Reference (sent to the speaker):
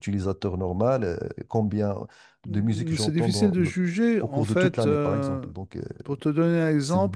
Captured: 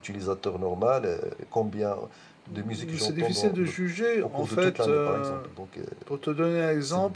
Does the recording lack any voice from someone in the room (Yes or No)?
Yes